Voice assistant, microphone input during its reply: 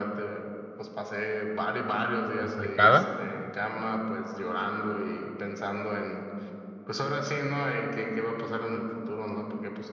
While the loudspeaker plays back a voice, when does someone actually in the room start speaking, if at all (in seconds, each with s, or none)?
2.3 s